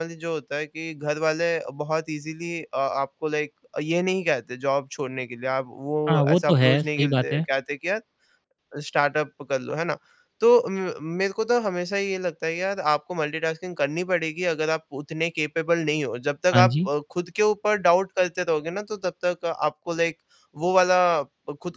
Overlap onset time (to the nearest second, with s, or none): 6 s